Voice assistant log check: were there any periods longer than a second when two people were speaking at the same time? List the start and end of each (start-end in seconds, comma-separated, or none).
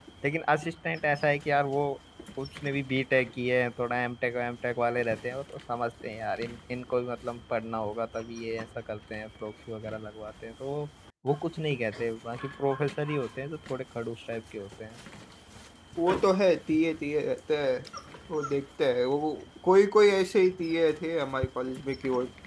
none